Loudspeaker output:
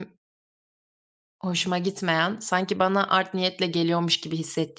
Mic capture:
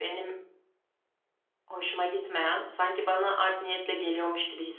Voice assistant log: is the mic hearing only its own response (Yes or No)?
Yes